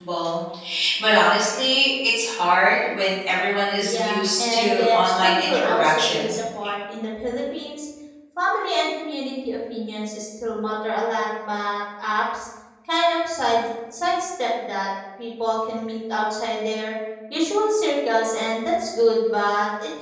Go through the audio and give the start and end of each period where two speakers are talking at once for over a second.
3.8-6.4

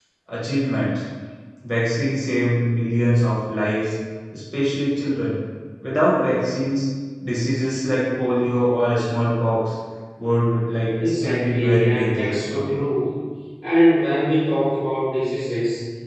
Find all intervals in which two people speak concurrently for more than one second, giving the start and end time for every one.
11.0-12.8

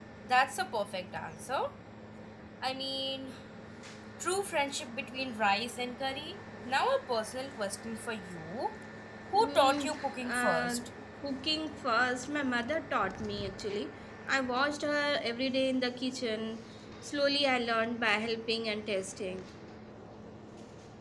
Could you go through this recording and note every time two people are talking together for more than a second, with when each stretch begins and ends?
9.3-10.8

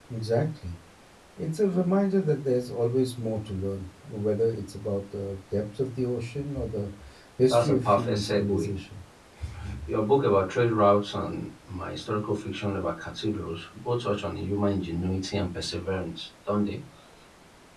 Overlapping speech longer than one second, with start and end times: 7.5-8.7

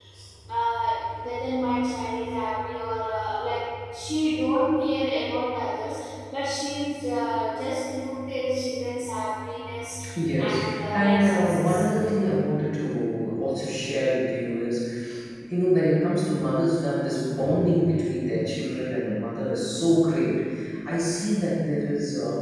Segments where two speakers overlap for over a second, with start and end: 10.4-11.9

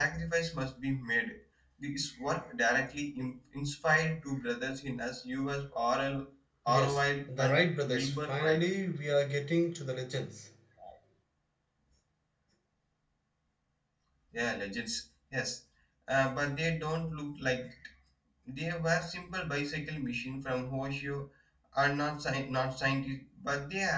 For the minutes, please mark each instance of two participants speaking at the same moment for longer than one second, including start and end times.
6.7-8.7

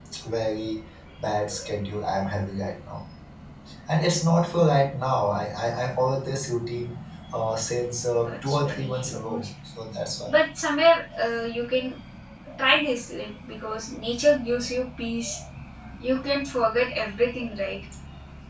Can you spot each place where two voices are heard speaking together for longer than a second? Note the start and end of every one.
8.3-9.5

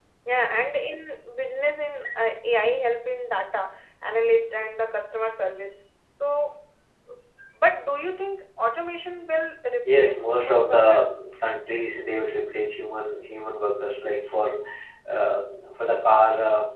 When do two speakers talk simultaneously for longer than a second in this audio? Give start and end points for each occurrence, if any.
9.8-11.1

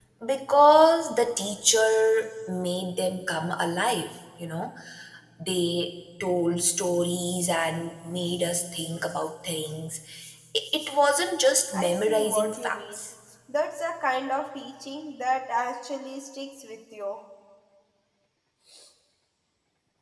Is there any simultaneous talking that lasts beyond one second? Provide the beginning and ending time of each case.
11.7-13.0

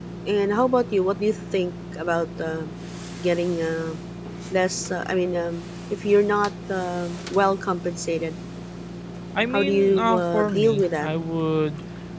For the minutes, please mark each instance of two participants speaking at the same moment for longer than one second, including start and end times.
9.5-11.1

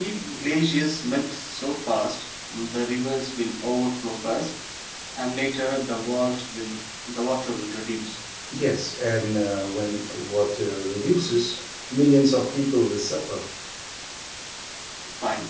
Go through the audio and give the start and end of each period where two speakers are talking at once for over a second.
none

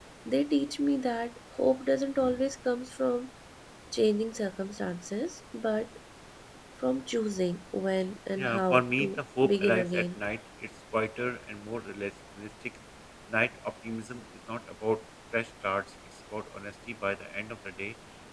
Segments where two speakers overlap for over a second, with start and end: 8.4-10.1

